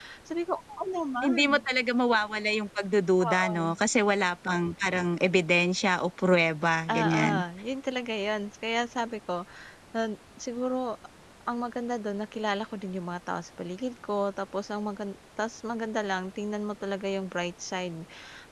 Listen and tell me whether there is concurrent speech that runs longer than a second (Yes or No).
No